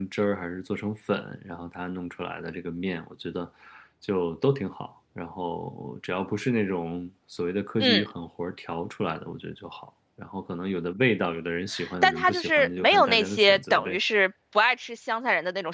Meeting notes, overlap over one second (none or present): present